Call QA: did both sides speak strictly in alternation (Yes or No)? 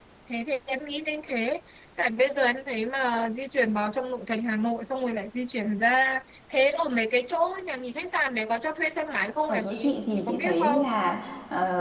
No